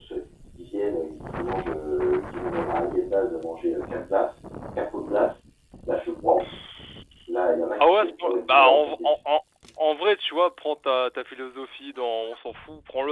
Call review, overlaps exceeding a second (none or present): present